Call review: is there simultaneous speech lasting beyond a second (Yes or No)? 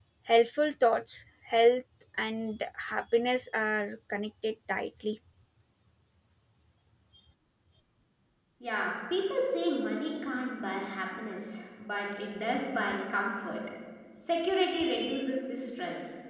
No